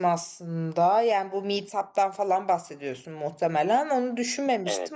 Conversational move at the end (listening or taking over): listening